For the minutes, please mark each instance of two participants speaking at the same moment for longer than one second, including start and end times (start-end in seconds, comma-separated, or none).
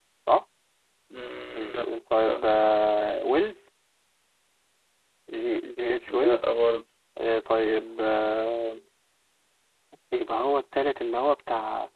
none